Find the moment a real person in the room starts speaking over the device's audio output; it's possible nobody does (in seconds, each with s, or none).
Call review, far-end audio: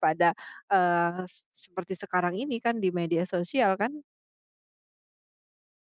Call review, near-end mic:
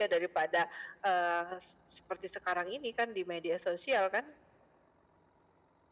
none